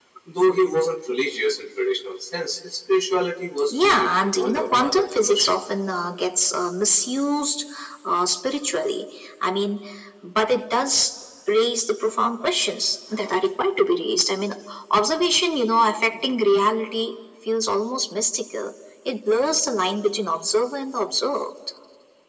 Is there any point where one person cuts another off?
Yes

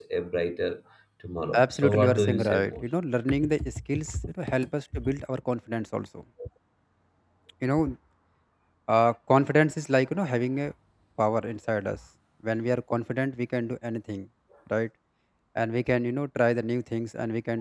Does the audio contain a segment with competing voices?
Yes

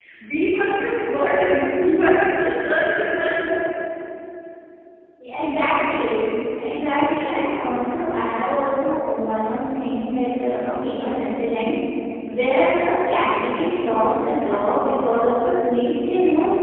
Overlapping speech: No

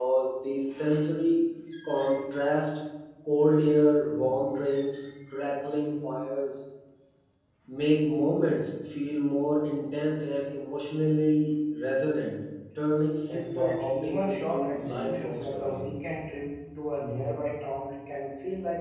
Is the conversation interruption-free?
No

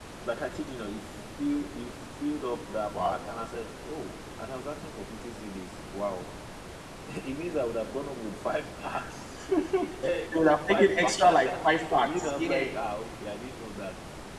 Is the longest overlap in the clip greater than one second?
Yes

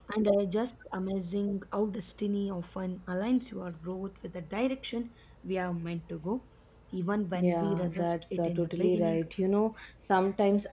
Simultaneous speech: Yes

